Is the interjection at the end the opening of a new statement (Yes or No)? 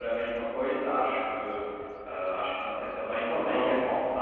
No